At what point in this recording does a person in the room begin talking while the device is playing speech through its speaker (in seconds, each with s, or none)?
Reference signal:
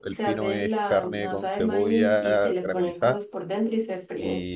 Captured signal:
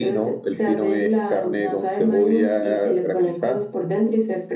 none